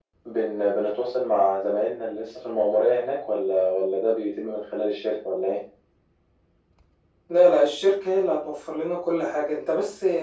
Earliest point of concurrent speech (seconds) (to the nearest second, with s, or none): none